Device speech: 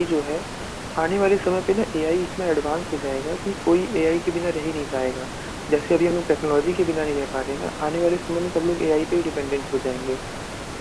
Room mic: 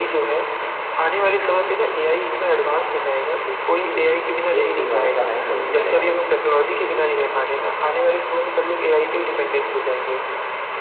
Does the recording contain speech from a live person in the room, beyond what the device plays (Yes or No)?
Yes